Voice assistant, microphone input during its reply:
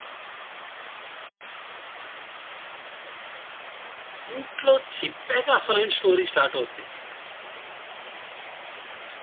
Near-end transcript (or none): ఇంట్లో చెప్పాక అసలైన స్టోరీ స్టార్ట్ అవుద్ది.